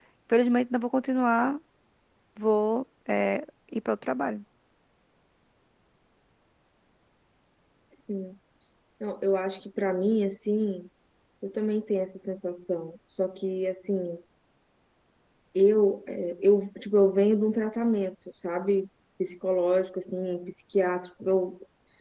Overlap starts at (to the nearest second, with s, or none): none